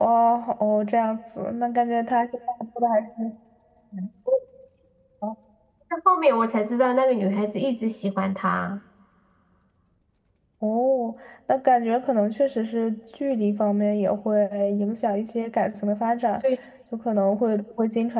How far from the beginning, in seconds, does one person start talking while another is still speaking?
none

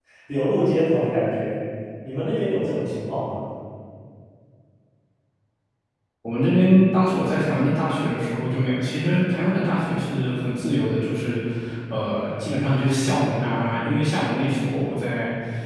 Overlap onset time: none

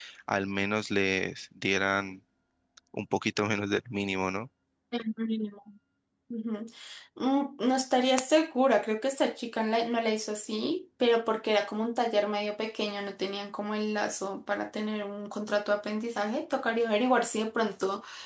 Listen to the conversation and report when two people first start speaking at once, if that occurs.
none

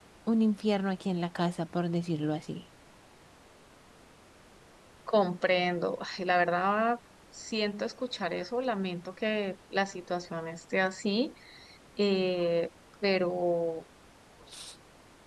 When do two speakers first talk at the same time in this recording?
none

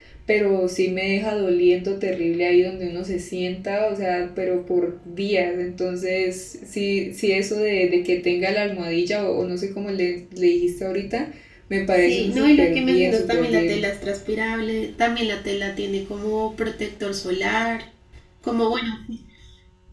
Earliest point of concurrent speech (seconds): 12.0 s

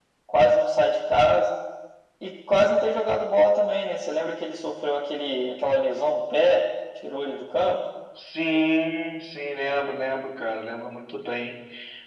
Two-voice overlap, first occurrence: none

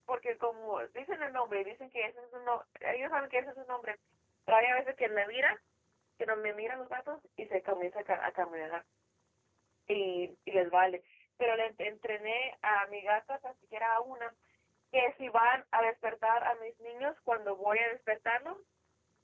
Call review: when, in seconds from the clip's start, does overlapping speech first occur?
none

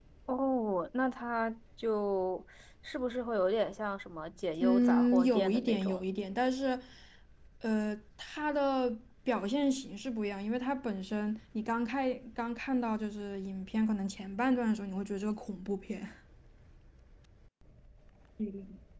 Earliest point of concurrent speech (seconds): 4.6 s

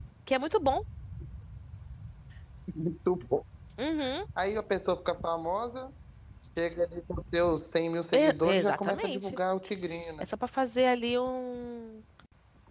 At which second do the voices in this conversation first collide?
8.1 s

